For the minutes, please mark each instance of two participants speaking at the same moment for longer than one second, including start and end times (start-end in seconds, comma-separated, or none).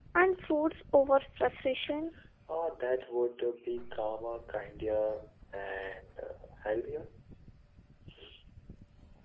none